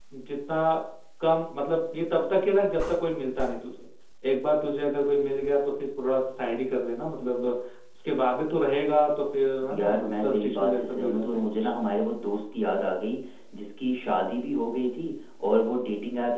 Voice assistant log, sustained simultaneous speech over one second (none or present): present